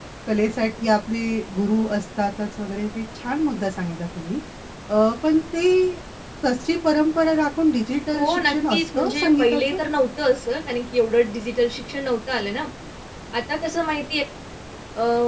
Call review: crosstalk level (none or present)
present